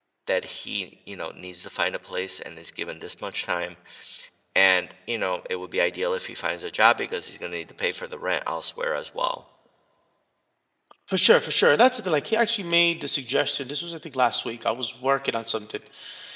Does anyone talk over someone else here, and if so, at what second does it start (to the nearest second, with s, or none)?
none